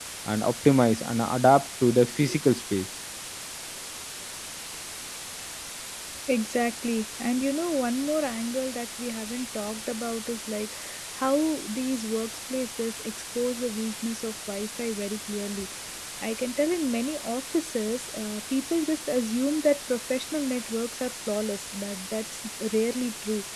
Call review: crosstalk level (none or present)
none